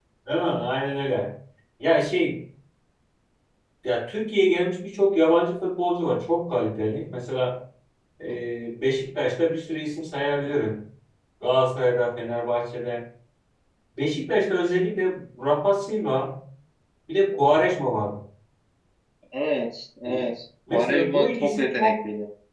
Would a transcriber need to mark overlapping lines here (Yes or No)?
Yes